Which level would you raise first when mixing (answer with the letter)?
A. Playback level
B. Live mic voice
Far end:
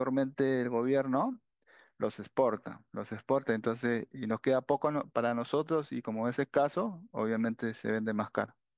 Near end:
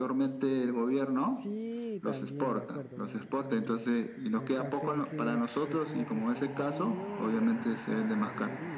B